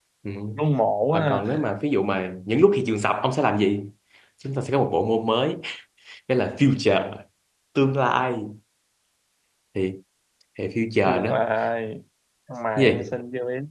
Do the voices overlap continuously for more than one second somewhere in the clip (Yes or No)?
No